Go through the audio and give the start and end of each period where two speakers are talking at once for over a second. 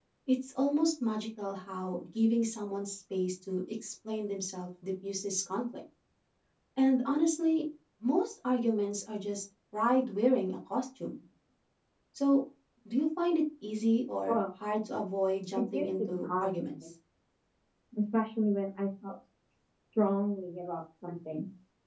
15.6-16.8

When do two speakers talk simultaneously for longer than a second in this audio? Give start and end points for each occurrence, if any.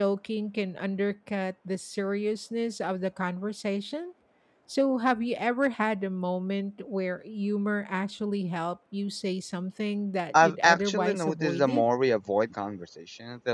10.4-11.9

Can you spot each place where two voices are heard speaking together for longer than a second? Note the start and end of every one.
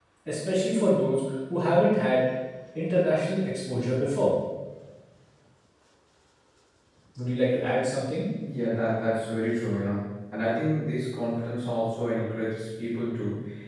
none

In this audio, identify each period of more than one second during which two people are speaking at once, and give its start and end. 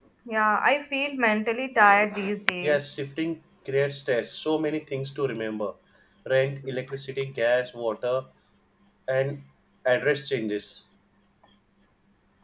none

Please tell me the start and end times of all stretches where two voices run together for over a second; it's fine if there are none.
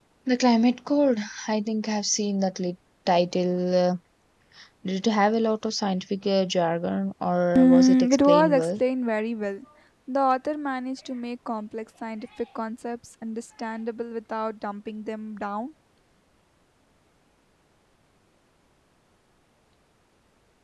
7.6-8.8

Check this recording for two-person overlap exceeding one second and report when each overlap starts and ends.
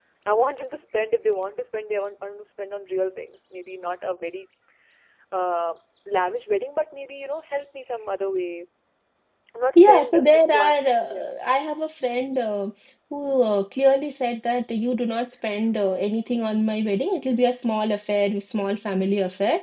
9.8-11.1

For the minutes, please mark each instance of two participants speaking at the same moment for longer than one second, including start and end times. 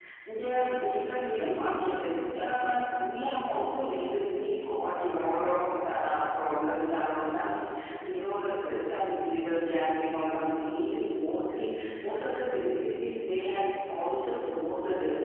none

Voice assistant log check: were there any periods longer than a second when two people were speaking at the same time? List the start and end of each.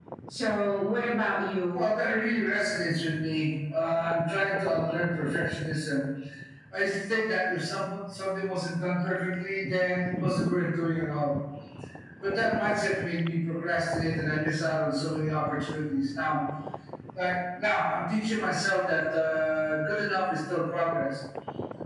none

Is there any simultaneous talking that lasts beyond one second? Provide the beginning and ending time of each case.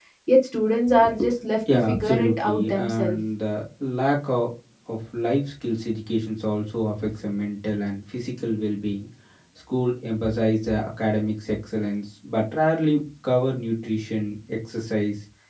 1.9-3.2

